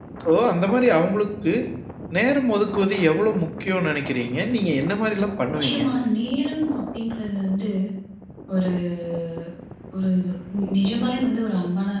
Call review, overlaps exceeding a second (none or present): none